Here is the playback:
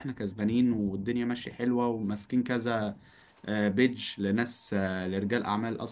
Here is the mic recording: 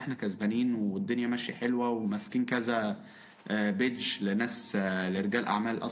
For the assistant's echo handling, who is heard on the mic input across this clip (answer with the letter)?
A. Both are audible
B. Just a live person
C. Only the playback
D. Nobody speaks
C